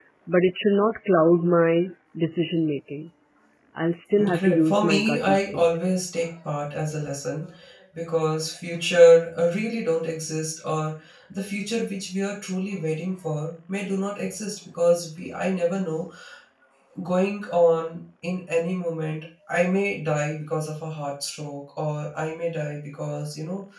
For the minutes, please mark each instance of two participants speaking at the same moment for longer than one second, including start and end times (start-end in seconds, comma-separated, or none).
4.3-5.7